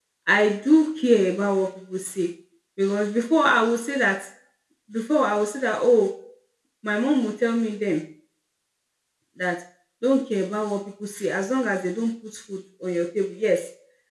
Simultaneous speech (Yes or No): No